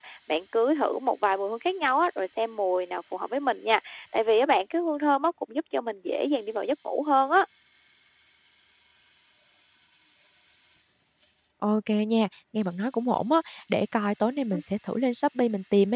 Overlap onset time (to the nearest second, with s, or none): none